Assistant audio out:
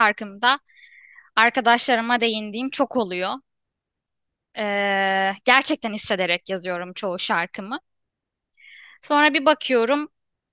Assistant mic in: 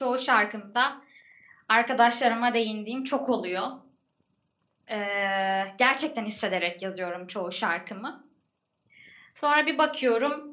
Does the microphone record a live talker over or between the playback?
No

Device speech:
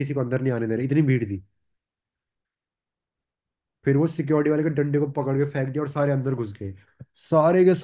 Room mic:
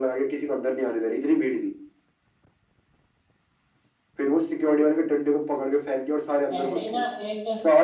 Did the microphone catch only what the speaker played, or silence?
No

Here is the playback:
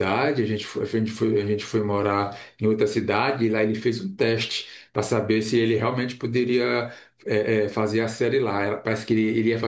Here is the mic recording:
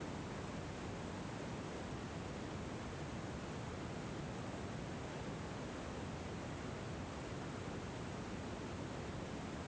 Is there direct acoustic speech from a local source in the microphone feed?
No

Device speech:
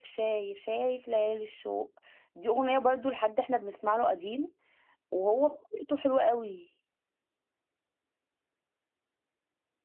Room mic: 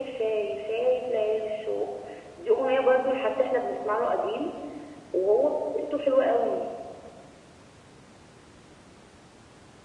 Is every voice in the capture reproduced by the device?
Yes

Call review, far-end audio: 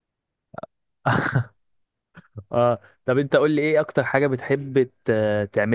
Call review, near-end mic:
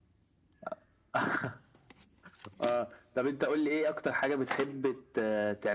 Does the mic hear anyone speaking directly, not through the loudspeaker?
No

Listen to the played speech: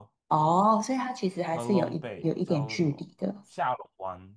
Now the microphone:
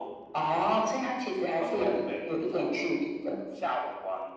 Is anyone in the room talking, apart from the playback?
No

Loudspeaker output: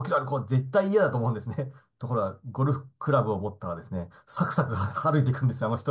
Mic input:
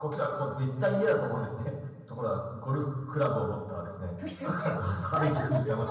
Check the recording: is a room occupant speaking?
Yes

